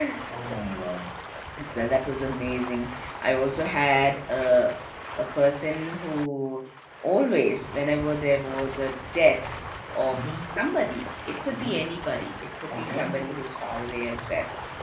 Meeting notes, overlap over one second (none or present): none